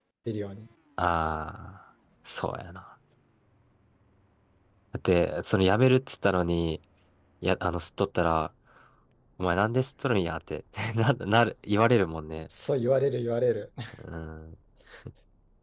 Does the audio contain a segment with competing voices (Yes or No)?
No